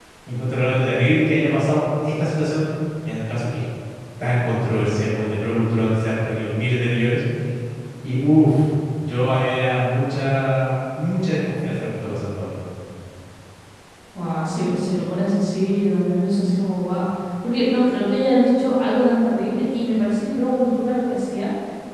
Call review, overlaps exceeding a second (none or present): none